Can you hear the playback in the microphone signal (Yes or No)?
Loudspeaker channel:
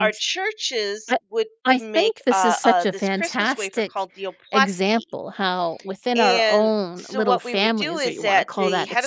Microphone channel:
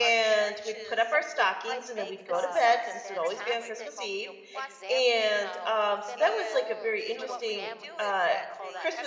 Yes